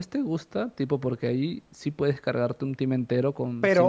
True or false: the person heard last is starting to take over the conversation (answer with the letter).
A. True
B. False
A